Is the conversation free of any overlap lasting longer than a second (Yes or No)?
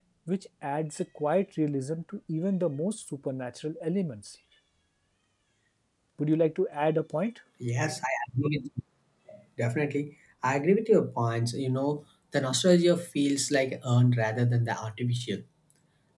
Yes